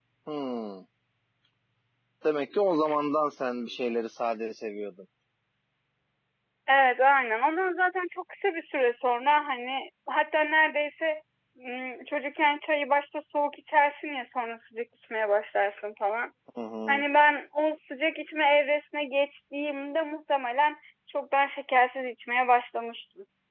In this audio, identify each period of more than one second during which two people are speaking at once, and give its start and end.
none

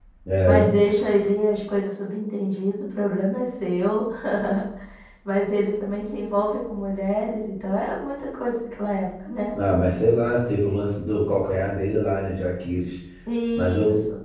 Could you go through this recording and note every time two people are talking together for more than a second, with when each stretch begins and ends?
none

